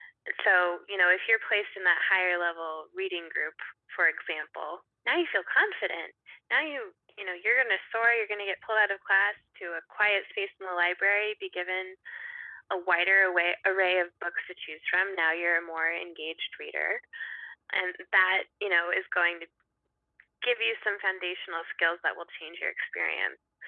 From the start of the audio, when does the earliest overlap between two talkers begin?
none

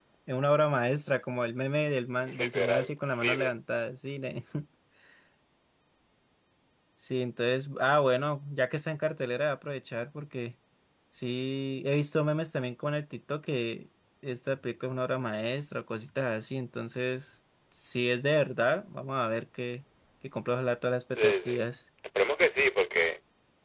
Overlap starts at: 2.3 s

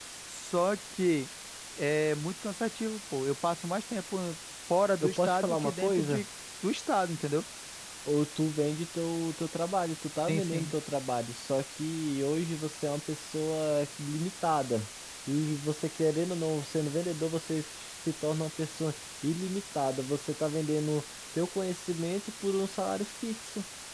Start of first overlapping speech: 5.0 s

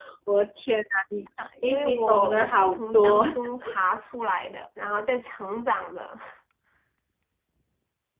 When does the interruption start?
1.4 s

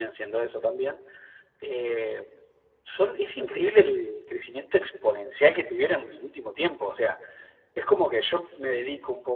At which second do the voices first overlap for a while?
none

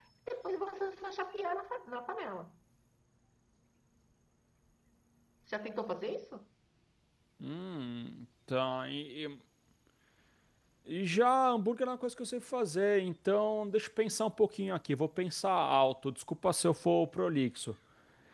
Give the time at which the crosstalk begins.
none

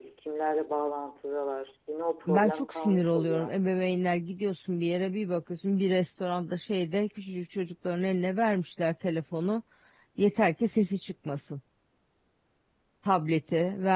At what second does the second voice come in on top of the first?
2.3 s

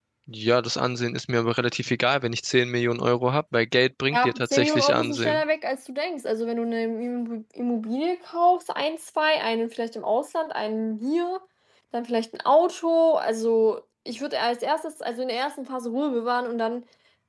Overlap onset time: 4.1 s

